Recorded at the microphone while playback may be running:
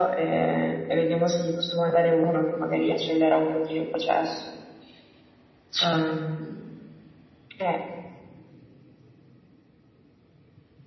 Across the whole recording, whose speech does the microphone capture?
echo only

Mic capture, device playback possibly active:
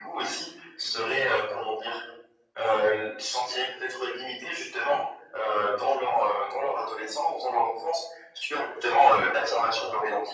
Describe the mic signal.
echo only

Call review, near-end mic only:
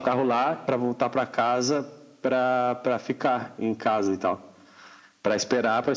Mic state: echo only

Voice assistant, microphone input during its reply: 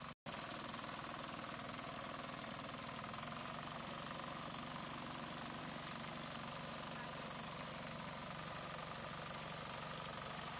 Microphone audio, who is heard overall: neither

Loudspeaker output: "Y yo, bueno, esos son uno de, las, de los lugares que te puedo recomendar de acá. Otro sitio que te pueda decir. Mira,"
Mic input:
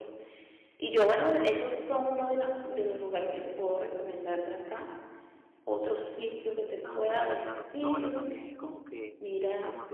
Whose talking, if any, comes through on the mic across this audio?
both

